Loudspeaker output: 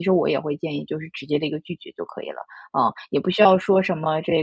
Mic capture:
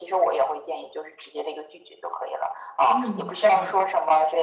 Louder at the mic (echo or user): echo